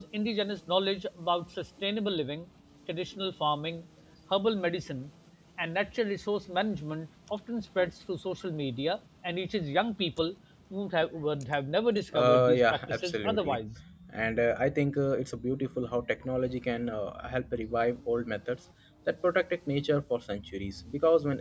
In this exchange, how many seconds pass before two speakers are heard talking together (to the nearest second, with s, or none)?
12 s